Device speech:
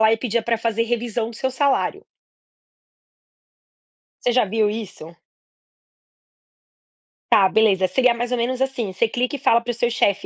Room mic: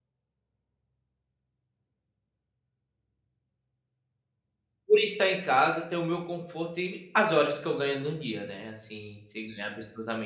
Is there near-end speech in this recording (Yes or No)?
Yes